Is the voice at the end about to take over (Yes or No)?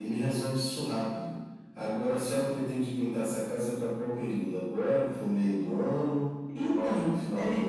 Yes